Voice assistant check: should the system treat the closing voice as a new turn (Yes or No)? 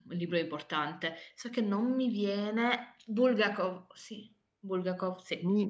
Yes